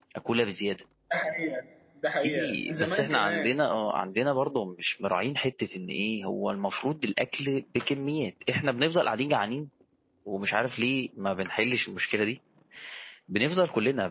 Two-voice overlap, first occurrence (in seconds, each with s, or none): 2.2 s